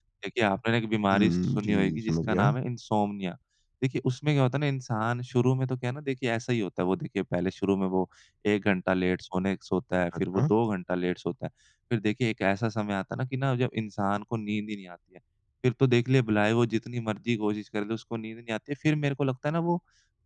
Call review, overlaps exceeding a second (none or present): present